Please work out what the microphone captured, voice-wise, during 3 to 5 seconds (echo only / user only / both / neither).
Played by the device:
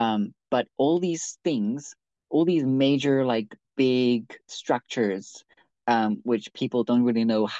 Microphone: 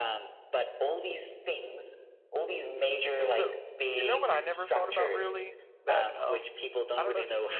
both